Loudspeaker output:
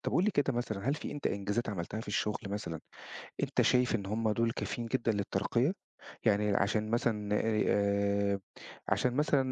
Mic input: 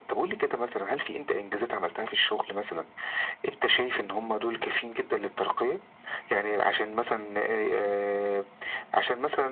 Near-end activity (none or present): none